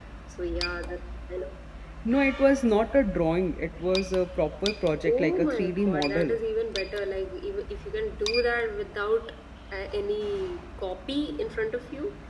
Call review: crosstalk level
present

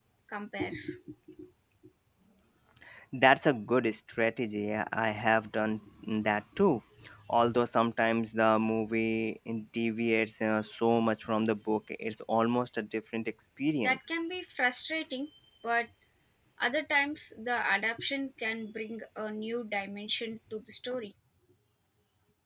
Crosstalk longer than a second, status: none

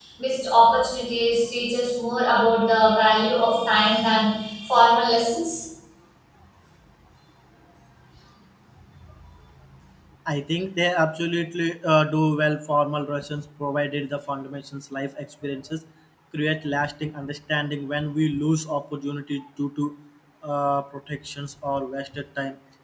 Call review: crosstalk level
none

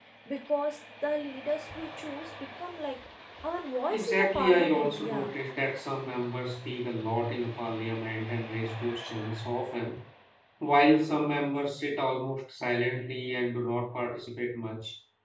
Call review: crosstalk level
present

